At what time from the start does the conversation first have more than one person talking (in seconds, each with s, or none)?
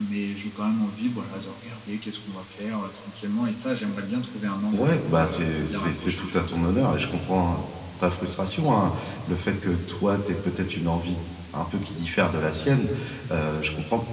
4.7 s